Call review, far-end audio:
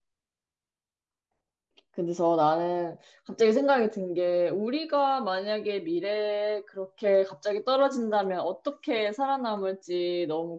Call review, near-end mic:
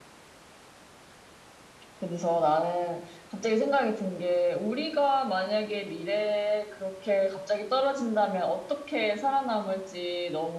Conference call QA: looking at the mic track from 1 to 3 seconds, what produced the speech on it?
echo only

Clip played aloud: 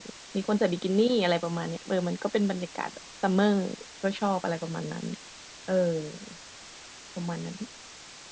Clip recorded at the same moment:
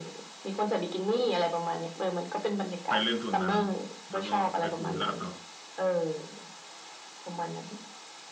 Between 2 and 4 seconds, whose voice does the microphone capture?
both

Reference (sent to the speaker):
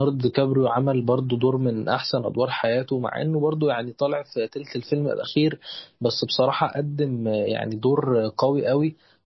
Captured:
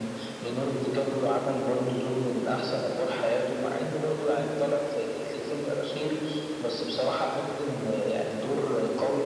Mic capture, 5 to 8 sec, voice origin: echo only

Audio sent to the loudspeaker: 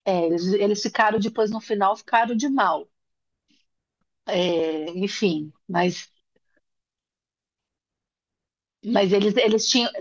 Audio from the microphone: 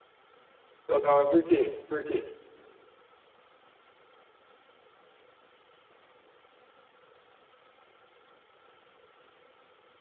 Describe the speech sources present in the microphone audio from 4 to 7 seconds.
neither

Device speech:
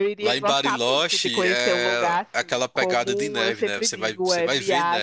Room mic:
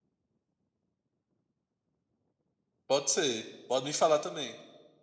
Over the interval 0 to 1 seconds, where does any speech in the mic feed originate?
neither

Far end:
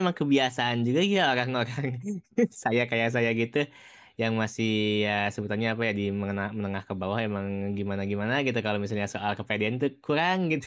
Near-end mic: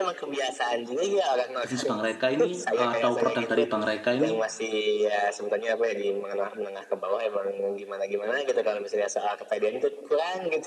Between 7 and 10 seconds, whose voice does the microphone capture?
echo only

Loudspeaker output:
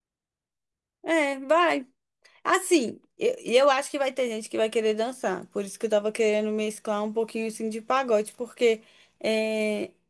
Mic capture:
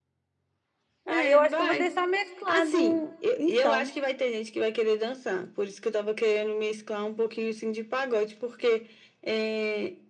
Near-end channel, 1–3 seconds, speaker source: both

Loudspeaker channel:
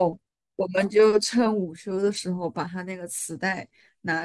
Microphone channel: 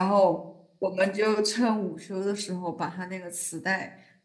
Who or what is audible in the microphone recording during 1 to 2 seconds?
echo only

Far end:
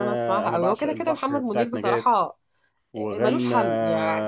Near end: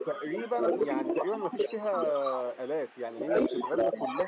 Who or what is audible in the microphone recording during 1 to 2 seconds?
both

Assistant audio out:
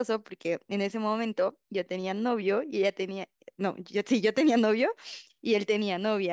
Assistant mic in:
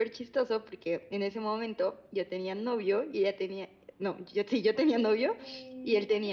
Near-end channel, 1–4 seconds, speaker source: echo only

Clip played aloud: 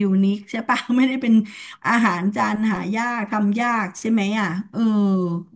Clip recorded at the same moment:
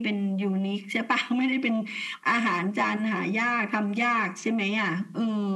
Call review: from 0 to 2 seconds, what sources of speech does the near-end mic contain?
echo only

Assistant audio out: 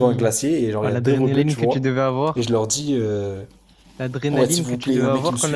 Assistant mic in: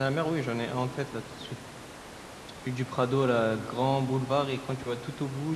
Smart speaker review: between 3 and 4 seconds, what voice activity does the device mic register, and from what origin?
user only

